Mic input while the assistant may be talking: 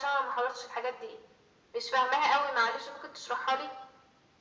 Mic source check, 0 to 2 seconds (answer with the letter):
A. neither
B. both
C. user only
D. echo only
D